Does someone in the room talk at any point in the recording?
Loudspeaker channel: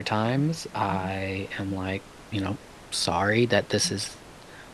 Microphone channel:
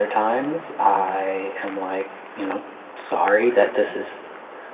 No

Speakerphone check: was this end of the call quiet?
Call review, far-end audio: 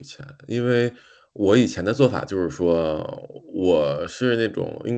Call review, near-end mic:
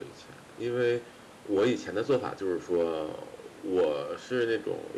Yes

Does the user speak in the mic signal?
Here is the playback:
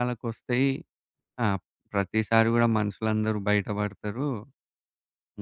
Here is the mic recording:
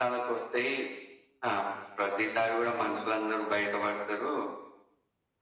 No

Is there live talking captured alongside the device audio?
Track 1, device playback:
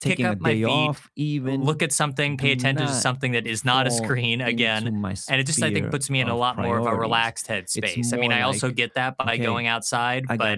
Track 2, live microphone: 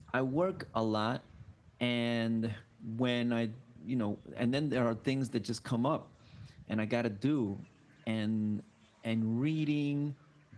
Yes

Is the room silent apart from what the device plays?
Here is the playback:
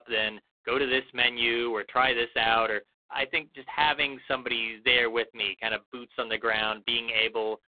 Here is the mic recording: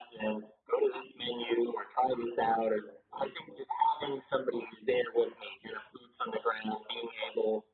Yes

